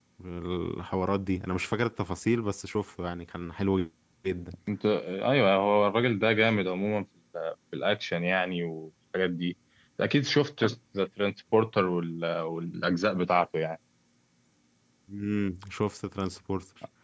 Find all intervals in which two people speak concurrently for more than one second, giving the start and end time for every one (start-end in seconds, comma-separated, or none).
none